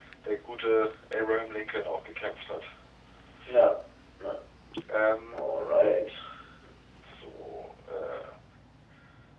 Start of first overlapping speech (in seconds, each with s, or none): none